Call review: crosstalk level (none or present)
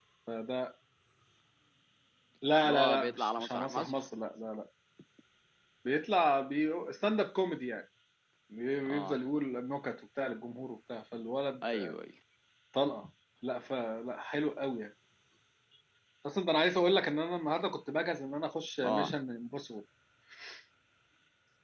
present